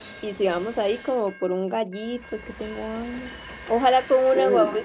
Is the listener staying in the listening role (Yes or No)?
Yes